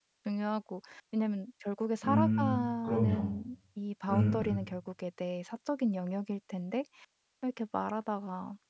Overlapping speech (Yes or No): Yes